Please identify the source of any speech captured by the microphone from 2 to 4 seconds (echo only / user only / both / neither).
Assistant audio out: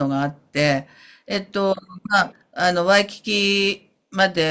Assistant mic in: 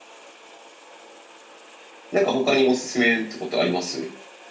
user only